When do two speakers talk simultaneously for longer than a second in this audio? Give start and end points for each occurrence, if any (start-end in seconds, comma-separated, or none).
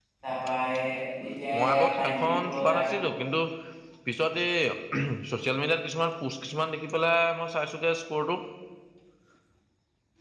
1.6-3.0